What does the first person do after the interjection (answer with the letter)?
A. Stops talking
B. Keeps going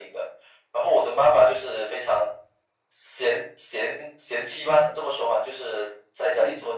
B